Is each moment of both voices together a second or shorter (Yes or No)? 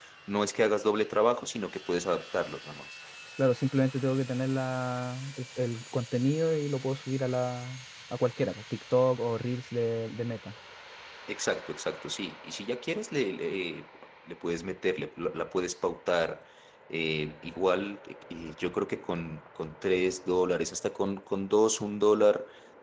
Yes